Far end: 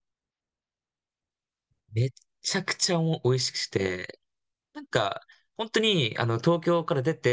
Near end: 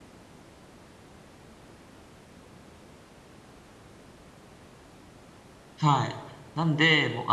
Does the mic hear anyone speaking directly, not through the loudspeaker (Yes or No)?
Yes